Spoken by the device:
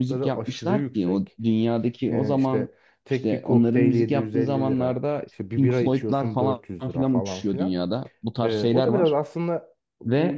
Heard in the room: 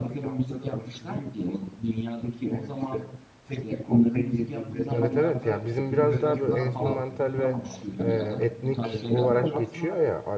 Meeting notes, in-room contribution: present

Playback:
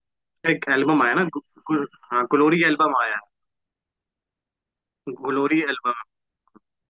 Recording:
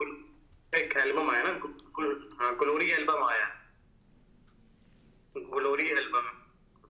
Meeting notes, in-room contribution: none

